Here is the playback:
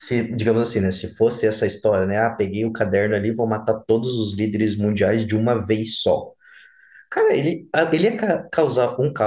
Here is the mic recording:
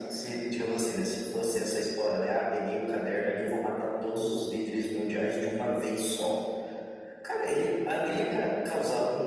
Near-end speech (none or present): none